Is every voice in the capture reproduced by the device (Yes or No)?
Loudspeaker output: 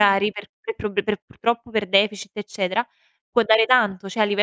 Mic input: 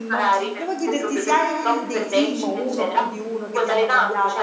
No